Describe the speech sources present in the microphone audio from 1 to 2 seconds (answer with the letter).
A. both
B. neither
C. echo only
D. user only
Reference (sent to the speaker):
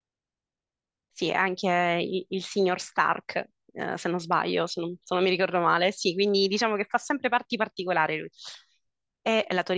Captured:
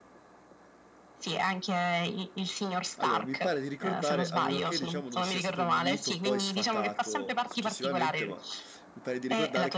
C